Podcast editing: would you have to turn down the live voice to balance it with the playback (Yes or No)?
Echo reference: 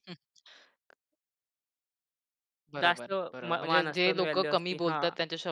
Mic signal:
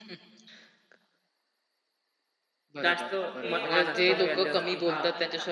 No